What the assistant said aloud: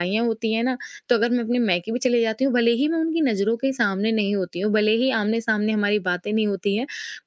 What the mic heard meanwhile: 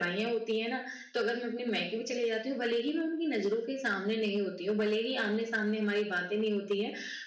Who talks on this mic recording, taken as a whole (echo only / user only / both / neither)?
echo only